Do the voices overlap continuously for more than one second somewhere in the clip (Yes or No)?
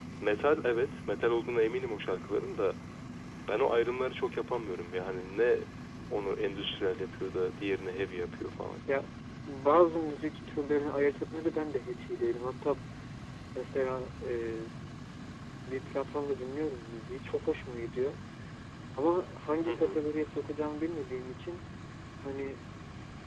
No